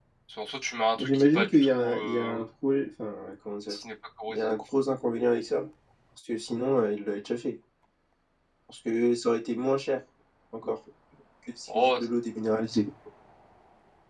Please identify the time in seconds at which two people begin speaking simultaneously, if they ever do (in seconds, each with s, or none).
1.0 s